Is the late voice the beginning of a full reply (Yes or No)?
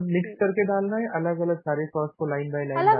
Yes